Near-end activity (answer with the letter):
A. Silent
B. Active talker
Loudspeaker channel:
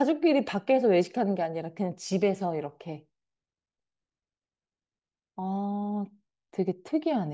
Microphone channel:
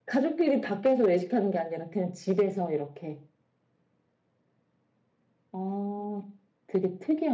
A